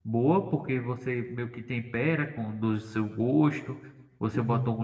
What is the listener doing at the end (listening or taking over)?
listening